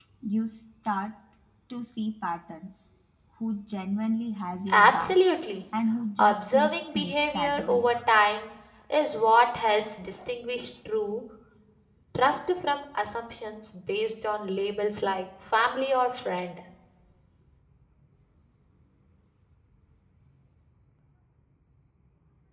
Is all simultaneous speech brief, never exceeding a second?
No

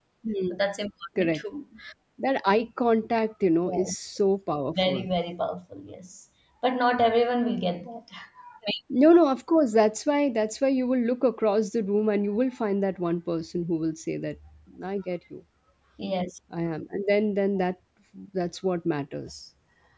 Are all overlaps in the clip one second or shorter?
Yes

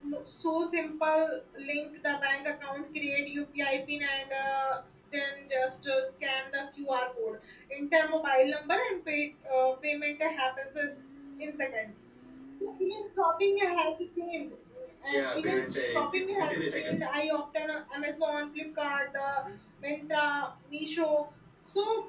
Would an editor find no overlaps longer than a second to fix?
No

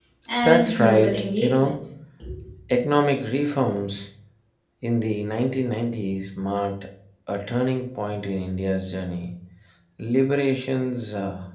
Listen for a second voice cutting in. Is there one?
Yes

